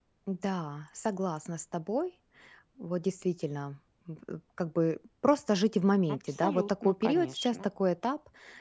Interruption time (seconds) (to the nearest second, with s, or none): 6 s